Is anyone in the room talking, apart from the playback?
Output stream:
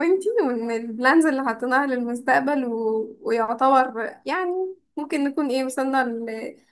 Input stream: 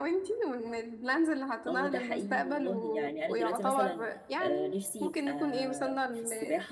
Yes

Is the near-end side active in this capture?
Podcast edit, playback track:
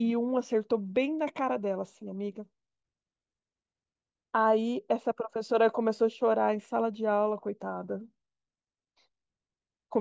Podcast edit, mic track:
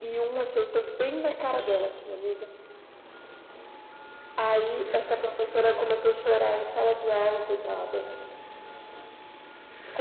No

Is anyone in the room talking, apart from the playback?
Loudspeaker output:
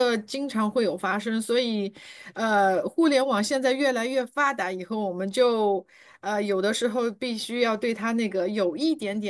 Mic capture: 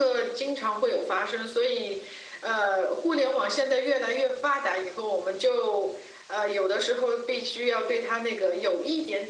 No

